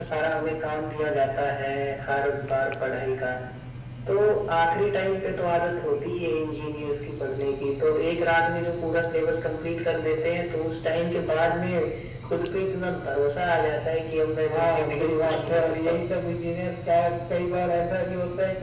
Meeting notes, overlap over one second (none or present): present